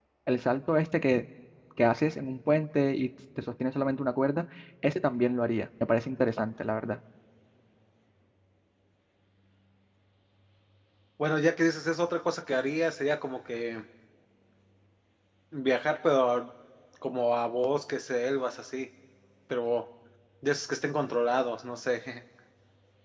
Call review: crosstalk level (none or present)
none